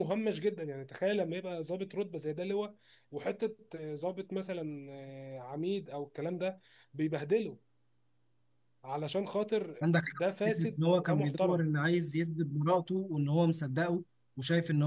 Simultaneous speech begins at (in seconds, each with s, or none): 10.2 s